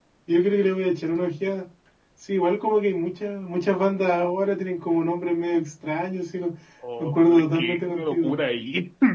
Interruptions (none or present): present